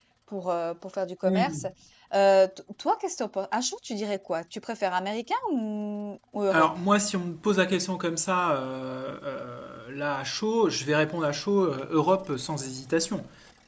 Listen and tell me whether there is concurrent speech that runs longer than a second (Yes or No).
No